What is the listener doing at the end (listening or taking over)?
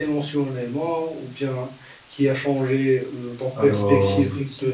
listening